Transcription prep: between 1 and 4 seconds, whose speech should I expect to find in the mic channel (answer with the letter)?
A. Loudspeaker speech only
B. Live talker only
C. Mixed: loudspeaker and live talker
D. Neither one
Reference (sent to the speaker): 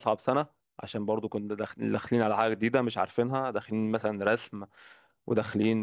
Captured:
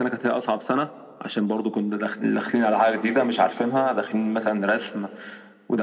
A